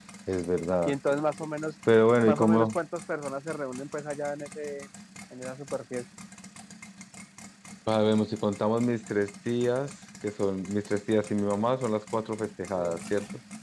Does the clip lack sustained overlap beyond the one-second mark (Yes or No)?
Yes